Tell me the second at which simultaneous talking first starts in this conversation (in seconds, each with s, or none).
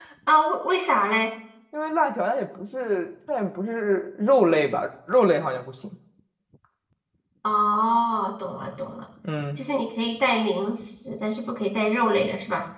none